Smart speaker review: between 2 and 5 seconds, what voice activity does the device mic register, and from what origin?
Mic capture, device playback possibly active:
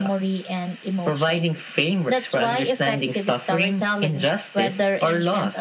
echo only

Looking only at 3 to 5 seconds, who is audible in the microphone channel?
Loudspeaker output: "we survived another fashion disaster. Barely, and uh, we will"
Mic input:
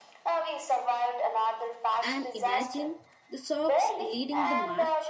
both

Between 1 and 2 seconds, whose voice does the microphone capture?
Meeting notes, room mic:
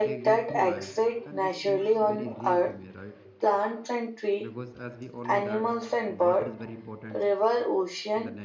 both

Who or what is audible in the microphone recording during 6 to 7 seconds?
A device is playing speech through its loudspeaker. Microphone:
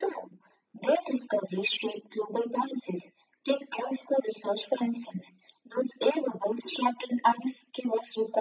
echo only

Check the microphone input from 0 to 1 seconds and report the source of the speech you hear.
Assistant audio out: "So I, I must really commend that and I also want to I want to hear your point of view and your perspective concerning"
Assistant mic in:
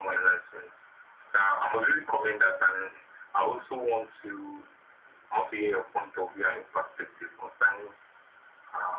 echo only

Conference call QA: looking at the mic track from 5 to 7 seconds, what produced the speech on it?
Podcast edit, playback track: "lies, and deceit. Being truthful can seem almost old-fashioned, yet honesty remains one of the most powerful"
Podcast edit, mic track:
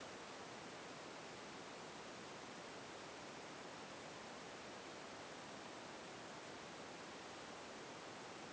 neither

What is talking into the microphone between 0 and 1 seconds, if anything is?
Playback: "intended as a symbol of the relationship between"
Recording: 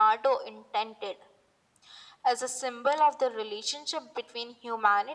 echo only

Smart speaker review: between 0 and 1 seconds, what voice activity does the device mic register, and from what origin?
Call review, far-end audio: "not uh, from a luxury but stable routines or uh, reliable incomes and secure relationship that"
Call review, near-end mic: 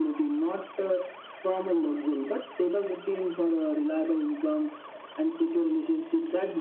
echo only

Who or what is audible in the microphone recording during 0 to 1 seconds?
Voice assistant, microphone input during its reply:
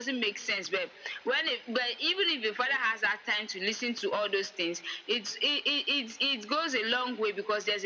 echo only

